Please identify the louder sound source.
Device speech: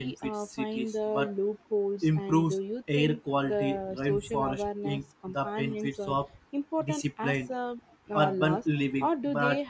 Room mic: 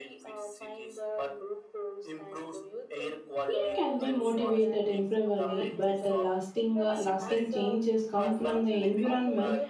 user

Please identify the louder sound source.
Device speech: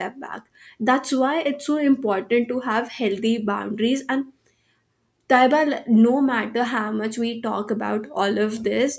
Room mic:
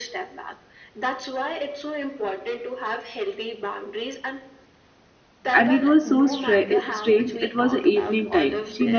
user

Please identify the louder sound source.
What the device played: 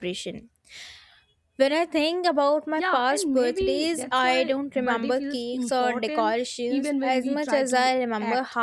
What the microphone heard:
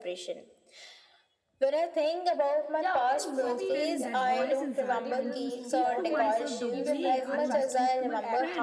echo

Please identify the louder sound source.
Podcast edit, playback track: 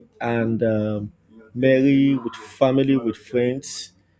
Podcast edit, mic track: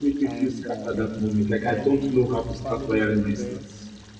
user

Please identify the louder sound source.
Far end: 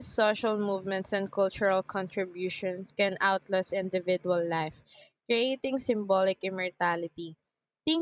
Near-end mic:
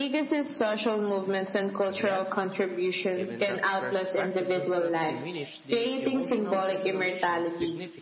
echo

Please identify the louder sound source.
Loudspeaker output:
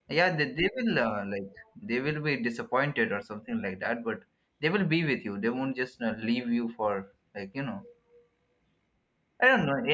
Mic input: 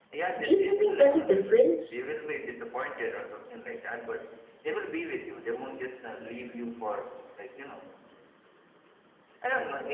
user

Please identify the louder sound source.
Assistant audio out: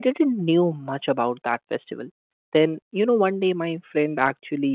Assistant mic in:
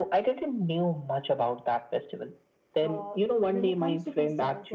echo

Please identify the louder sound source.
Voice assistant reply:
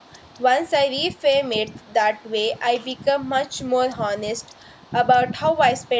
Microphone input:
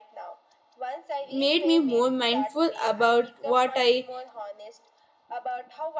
user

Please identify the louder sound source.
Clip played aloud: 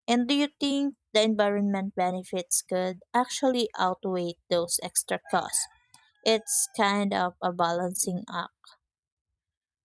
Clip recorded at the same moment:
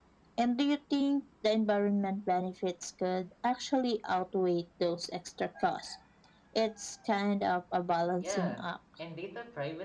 echo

